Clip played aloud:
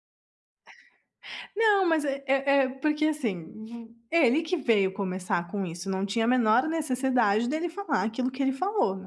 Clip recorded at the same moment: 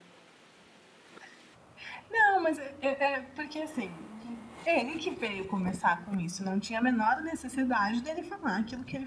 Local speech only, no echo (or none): none